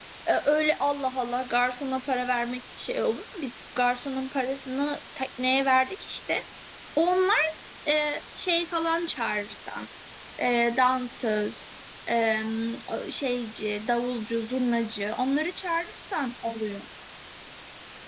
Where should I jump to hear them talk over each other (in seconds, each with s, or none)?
none